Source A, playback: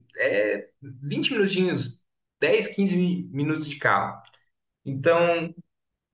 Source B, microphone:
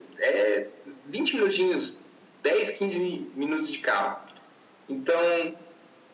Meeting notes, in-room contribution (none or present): none